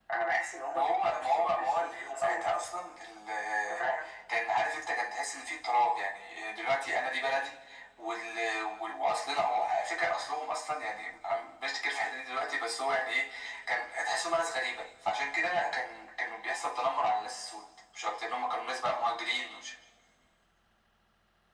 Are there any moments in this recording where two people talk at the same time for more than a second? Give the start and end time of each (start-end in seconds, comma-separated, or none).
0.7-2.6